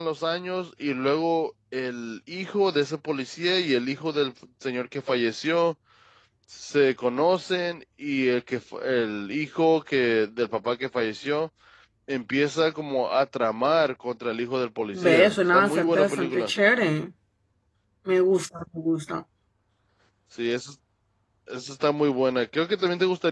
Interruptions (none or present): present